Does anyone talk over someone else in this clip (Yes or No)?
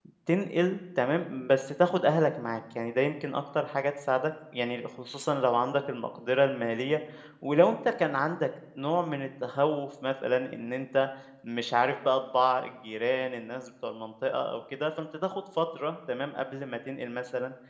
No